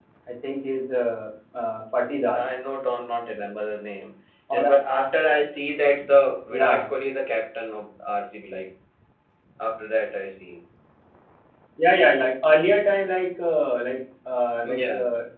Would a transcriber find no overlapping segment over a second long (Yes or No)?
Yes